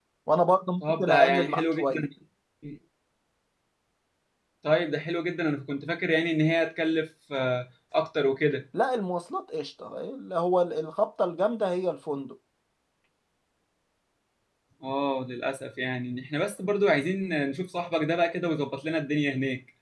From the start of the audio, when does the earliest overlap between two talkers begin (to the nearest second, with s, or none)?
1 s